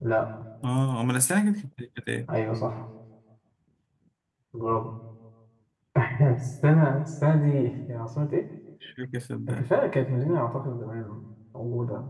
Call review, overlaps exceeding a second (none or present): none